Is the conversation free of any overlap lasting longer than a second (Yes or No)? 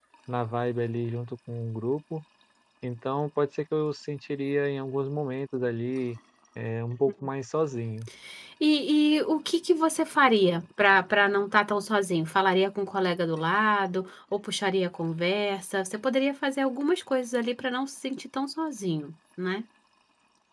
Yes